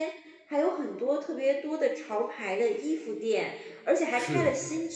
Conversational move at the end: listening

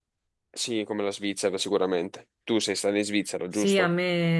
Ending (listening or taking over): taking over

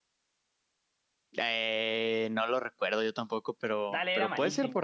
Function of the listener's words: taking over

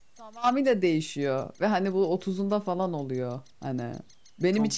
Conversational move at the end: listening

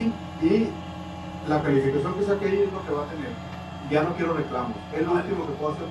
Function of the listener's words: listening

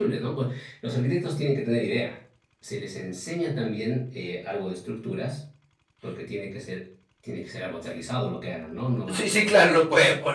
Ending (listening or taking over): taking over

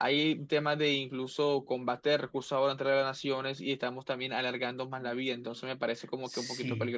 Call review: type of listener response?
taking over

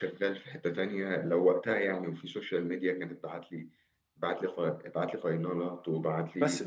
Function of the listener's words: taking over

